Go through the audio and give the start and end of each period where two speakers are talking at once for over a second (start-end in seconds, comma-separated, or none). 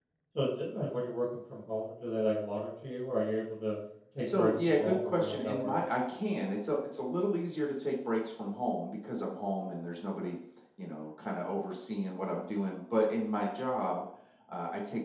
4.2-5.7